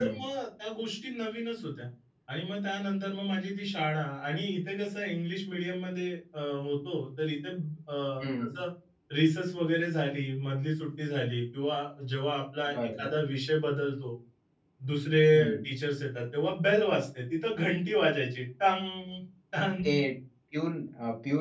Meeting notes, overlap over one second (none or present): none